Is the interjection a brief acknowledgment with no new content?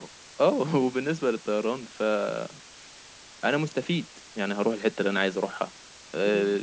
Yes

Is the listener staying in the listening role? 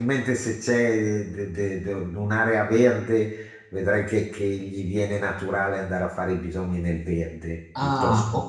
No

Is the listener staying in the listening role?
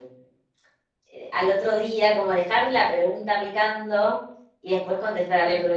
Yes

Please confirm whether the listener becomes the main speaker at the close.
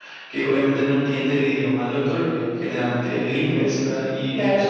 Yes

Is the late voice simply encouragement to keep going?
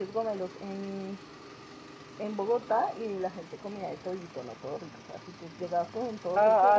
No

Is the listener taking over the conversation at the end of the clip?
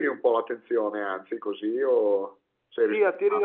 Yes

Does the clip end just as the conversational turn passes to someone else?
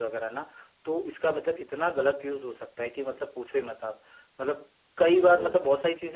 No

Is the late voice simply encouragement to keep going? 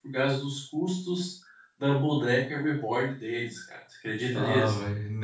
No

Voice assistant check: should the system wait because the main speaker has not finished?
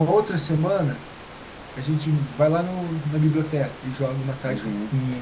No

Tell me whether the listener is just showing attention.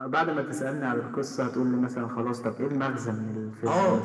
No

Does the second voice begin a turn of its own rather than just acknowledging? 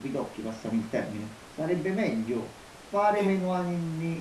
No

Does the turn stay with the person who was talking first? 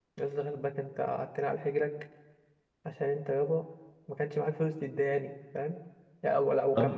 Yes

